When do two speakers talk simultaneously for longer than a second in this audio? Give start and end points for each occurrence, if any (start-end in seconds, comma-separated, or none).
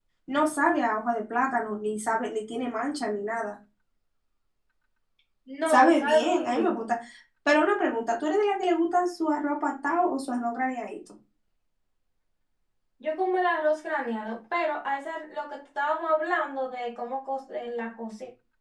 5.7-6.9